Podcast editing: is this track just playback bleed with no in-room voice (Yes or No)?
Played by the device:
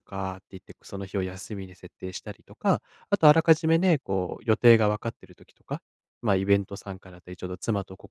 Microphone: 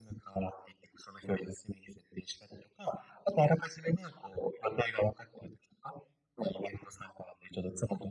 Yes